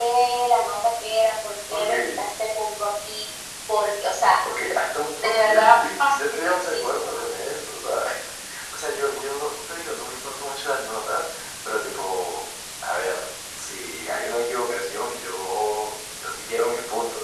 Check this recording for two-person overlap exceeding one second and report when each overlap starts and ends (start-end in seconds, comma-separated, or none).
5.2-7.2